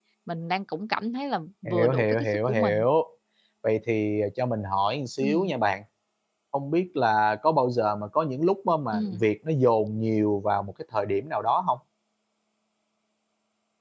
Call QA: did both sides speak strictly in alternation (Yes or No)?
No